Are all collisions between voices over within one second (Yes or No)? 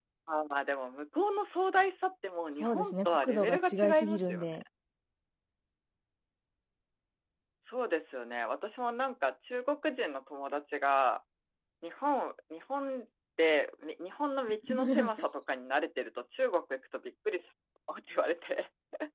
No